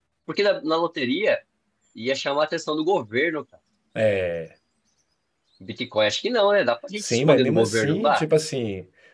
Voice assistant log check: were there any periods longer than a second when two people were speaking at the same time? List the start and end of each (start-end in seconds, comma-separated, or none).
7.0-8.2